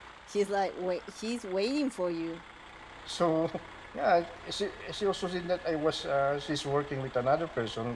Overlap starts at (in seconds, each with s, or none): none